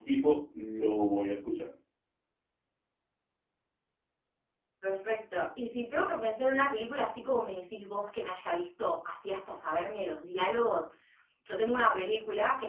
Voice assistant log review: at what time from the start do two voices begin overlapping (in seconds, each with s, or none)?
none